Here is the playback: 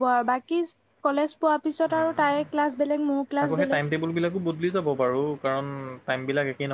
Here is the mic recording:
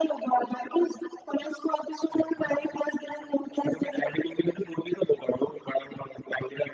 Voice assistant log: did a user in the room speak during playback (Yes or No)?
No